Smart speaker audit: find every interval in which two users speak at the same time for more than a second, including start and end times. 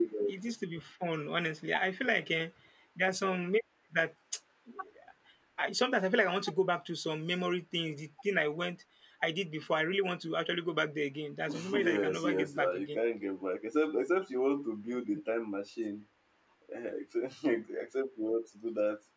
11.5-13.0

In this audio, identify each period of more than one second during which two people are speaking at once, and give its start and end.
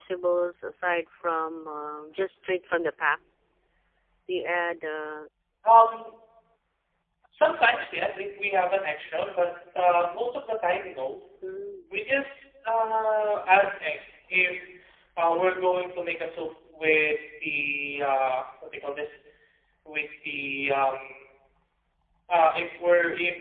none

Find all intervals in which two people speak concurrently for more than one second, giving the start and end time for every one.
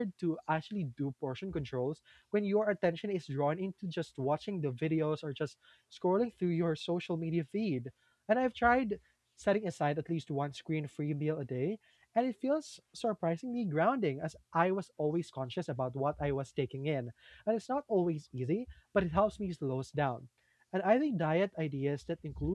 none

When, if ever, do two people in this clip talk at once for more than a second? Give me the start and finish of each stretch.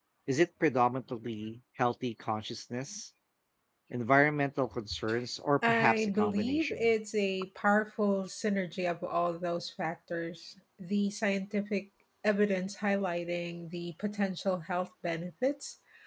5.7-6.9

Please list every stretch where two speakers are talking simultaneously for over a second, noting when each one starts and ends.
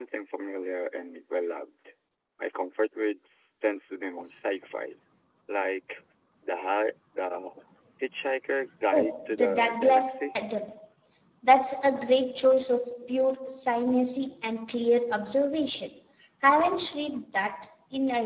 8.9-10.3

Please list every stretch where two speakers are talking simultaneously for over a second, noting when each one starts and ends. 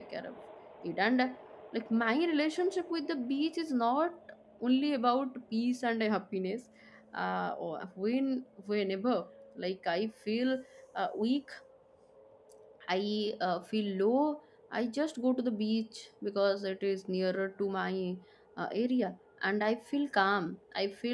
none

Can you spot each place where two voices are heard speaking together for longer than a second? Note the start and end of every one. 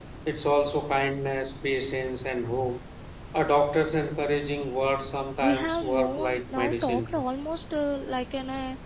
5.4-7.2

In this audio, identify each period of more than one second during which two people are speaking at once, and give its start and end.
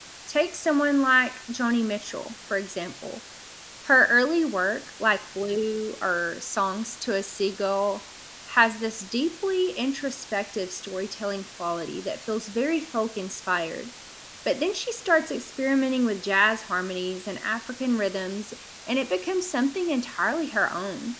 none

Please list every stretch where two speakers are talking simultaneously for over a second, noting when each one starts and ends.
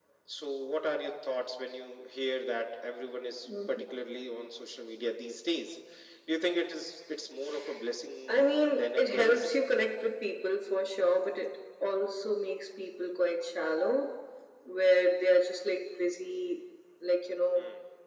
8.3-9.6

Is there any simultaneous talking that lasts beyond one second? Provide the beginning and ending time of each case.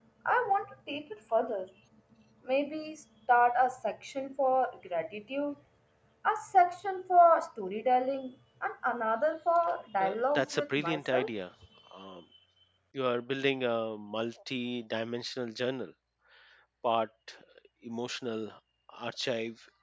10.0-11.3

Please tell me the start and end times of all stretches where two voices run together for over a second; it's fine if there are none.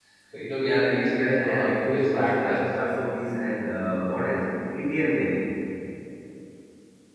0.6-2.6

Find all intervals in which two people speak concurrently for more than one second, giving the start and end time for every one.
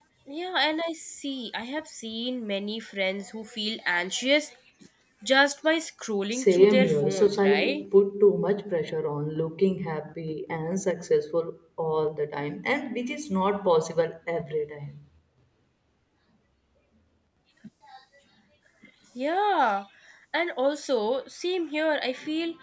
6.3-7.8

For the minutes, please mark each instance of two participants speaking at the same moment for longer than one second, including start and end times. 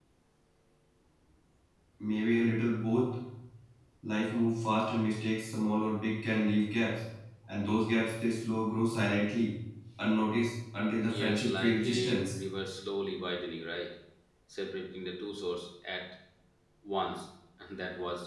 11.1-12.4

